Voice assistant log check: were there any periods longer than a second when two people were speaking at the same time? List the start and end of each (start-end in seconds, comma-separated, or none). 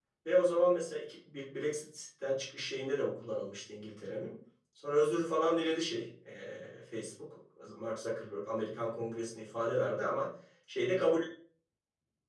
none